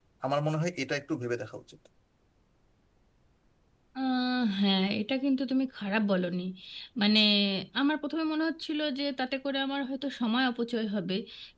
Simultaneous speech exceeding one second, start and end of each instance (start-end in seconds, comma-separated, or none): none